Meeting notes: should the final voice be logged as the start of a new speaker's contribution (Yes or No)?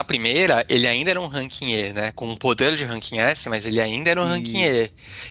No